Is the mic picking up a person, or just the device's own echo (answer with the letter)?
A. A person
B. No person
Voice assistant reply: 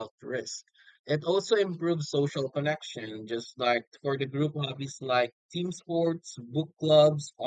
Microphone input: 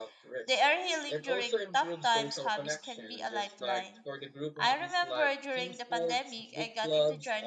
A